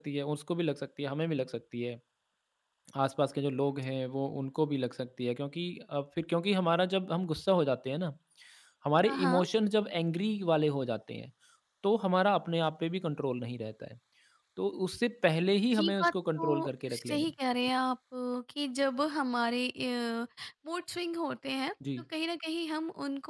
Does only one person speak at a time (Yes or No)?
No